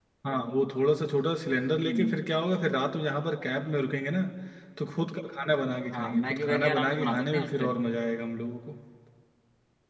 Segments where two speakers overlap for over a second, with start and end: 5.9-7.7

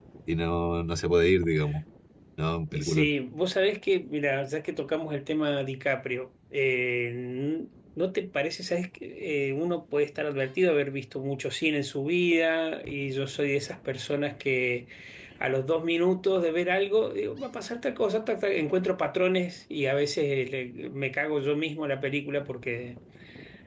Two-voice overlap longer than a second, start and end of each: none

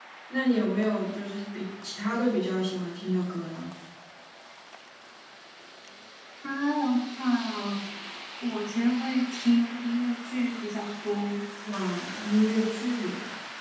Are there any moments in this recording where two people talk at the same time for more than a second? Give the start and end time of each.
none

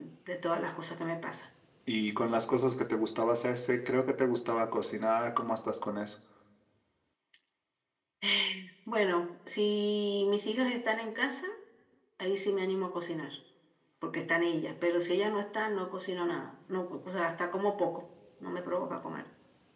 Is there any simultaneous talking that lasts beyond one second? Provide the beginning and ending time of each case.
none

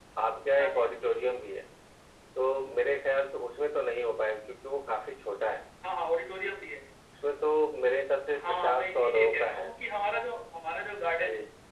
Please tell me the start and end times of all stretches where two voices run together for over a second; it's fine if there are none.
8.5-9.7

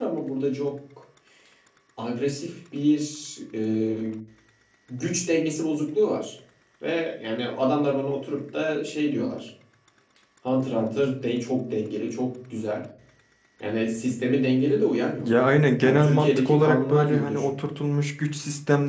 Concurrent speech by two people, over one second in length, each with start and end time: 15.8-17.6

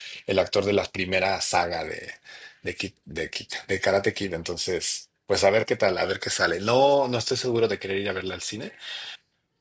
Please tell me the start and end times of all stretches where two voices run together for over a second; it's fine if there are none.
none

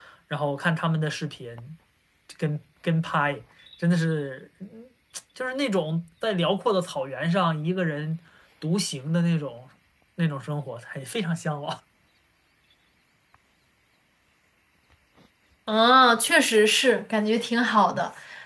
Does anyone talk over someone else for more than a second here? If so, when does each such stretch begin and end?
none

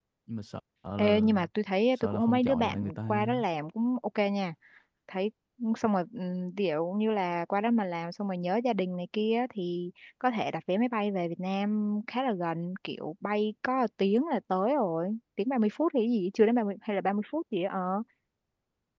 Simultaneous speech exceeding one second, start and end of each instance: 2.0-3.4

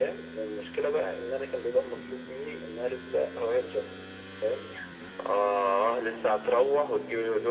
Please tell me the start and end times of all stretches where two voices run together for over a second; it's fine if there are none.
none

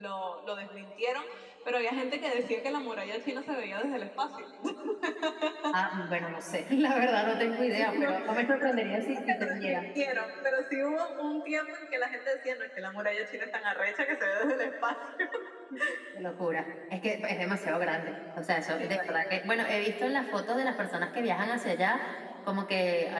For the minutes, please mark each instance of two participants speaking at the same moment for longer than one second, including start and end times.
7.8-9.8

